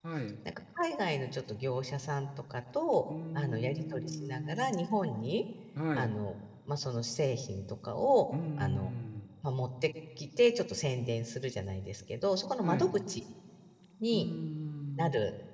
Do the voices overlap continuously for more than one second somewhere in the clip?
Yes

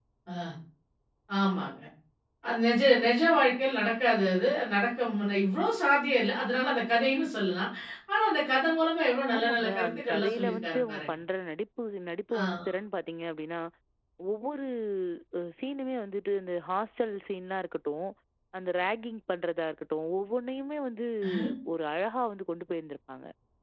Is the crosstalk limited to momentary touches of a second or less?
No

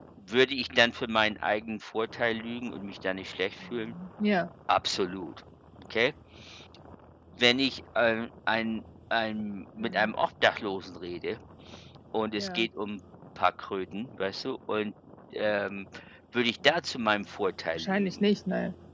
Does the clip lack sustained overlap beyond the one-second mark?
Yes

